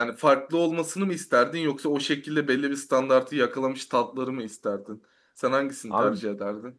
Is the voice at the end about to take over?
Yes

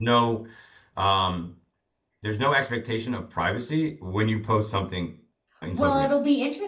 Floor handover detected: Yes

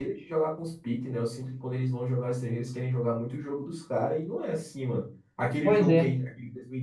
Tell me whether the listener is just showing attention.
Yes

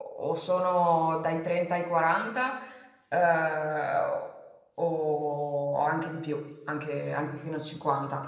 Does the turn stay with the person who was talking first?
No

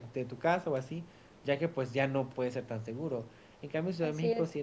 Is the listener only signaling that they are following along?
Yes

